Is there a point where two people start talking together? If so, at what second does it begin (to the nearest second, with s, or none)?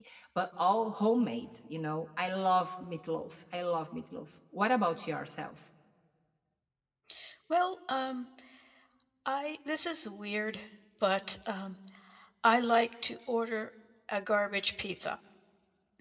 none